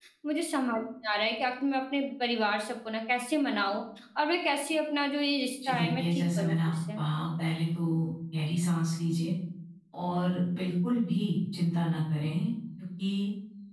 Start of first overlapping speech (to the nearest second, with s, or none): 6 s